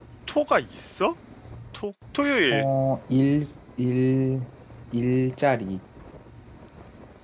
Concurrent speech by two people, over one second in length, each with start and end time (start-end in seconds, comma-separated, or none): none